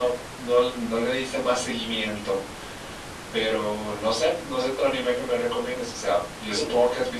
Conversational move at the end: listening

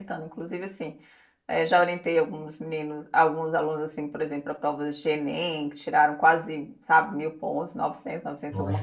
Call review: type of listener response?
taking over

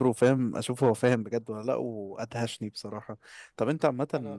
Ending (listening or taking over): listening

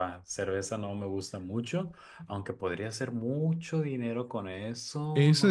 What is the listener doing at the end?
taking over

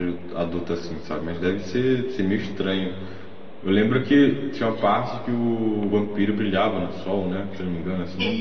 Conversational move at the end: taking over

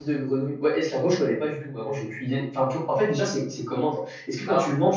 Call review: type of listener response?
listening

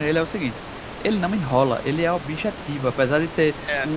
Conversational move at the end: listening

